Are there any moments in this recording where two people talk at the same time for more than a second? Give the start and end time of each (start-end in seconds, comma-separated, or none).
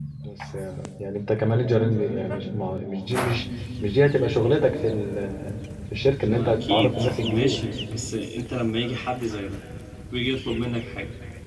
6.2-7.6